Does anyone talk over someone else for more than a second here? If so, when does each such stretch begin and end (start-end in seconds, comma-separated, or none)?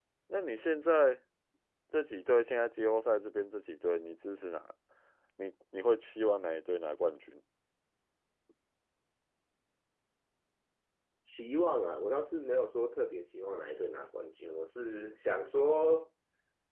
none